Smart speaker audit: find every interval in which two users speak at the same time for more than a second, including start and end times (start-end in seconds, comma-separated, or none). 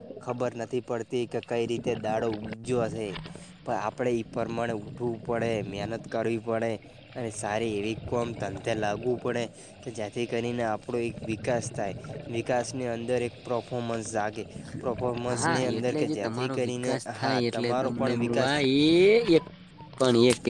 15.3-18.5